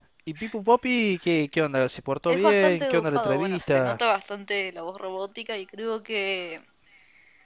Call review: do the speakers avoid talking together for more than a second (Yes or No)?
No